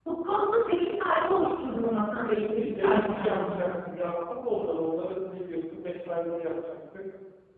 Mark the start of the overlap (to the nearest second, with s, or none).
2 s